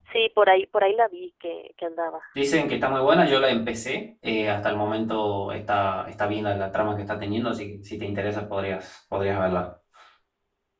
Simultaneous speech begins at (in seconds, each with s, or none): none